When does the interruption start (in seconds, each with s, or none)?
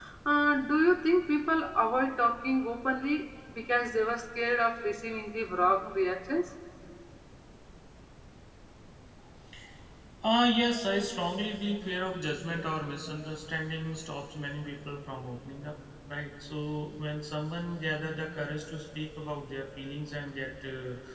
none